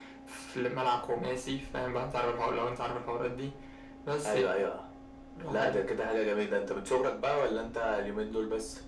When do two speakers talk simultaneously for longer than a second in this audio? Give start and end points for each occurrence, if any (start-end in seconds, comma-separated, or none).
none